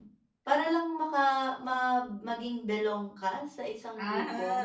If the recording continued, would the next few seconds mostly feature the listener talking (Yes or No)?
Yes